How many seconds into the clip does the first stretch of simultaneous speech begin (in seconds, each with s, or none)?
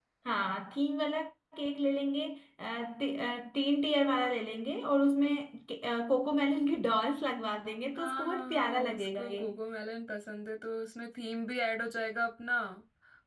8.0 s